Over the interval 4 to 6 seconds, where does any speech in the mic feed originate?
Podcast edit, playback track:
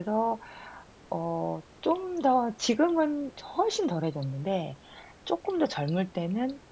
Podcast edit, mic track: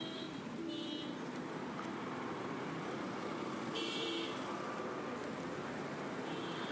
neither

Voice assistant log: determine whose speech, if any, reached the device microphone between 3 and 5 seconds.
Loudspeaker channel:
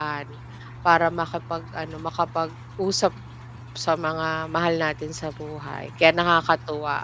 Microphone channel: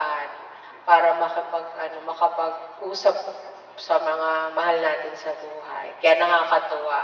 echo only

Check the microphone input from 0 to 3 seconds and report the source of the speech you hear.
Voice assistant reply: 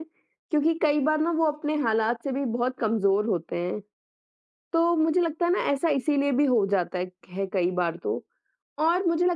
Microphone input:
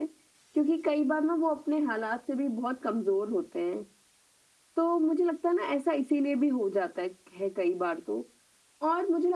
echo only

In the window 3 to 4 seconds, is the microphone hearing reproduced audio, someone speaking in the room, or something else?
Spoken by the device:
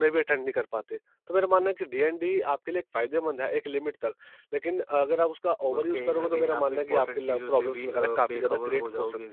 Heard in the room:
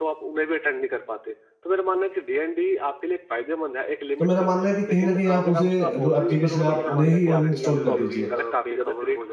echo only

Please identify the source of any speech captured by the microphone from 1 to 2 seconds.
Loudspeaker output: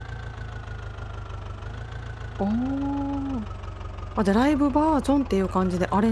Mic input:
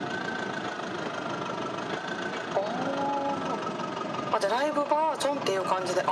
neither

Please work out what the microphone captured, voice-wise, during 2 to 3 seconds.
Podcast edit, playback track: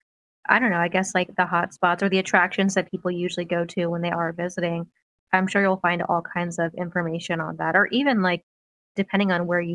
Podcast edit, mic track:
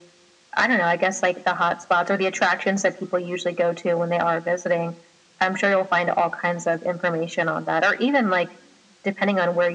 echo only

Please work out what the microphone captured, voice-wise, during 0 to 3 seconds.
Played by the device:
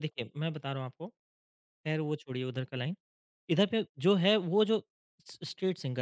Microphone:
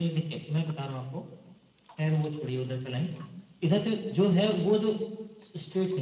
echo only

